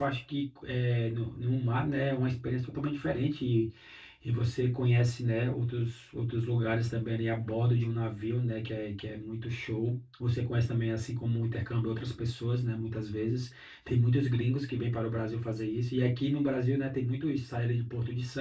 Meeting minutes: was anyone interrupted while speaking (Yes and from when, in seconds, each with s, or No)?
No